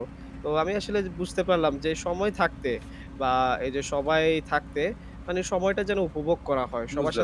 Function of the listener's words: listening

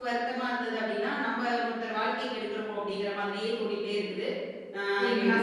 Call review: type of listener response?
taking over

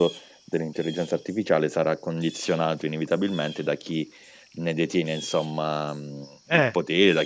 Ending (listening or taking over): listening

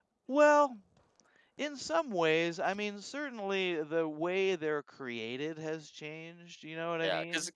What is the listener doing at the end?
taking over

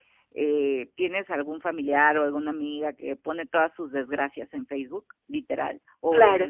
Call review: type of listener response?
listening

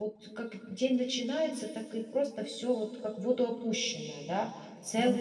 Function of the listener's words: taking over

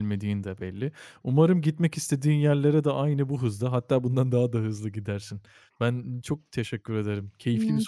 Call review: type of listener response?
taking over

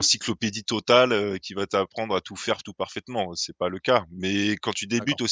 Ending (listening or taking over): listening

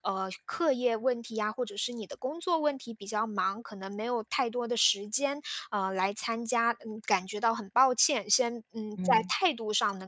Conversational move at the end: listening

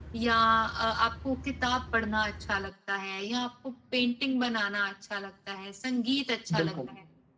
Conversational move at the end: listening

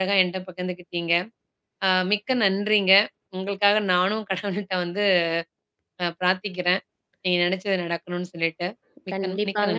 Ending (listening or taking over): taking over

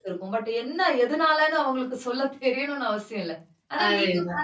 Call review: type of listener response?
listening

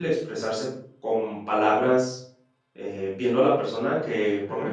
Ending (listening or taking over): listening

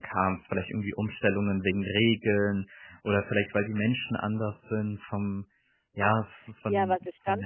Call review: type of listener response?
taking over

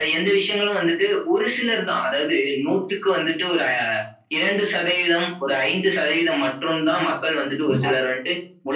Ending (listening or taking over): listening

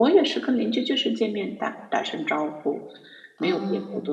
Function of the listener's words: listening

